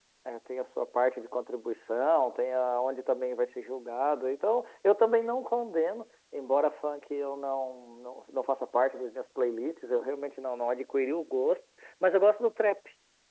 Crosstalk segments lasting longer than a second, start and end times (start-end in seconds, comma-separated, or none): none